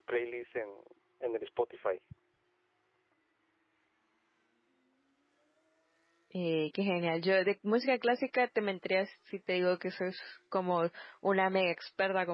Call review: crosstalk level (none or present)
none